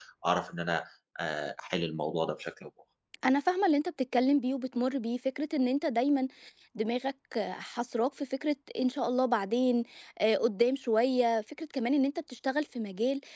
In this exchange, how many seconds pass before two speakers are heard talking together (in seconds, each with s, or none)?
none